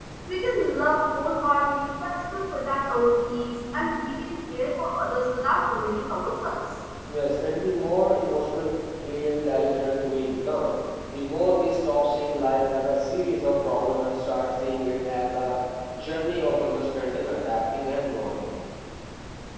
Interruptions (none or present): none